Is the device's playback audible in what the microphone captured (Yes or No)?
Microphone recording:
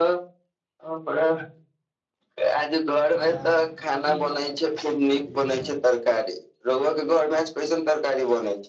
Yes